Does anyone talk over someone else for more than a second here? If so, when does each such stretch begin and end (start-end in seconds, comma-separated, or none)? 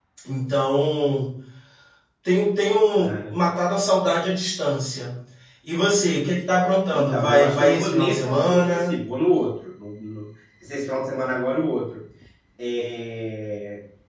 6.9-8.9